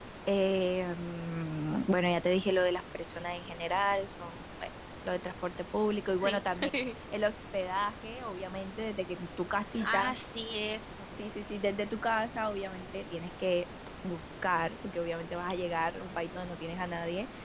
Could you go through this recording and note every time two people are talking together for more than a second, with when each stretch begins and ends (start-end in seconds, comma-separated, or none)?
none